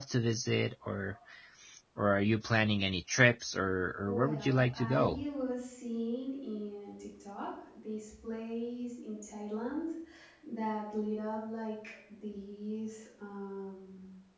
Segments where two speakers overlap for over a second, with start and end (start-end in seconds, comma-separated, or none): 4.0-5.2